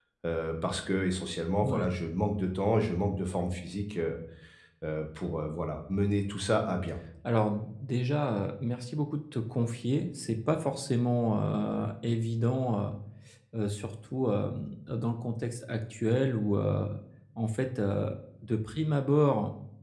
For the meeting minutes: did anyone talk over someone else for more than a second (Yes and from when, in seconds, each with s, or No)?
No